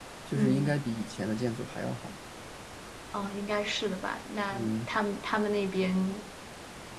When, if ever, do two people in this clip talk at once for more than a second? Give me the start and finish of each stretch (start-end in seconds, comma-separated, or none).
none